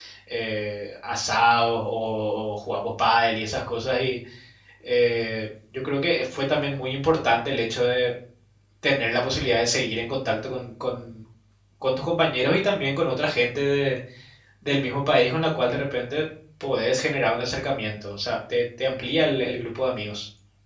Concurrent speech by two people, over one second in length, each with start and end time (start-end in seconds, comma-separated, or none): none